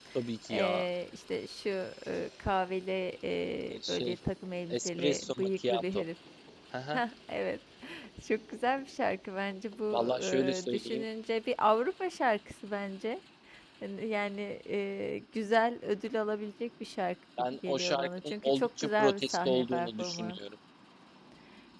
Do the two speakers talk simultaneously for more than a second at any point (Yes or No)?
Yes